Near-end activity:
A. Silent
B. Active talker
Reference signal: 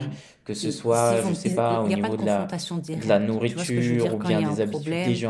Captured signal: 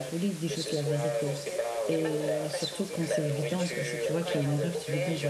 B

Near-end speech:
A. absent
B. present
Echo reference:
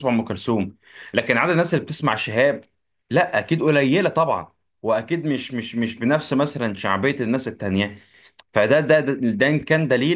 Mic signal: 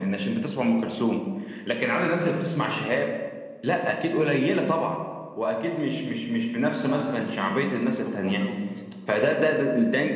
B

